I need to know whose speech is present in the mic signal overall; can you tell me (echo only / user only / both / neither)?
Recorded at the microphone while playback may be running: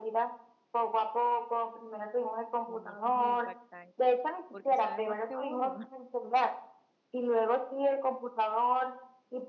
both